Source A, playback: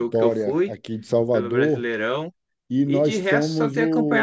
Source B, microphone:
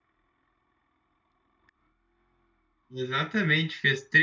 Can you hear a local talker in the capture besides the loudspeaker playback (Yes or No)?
Yes